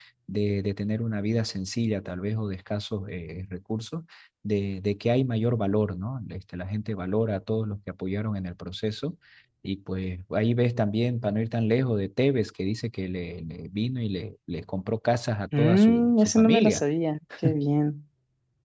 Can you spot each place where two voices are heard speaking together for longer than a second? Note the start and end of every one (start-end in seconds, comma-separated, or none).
15.6-16.8